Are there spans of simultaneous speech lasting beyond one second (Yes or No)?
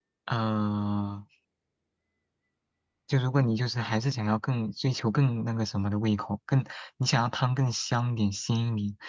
No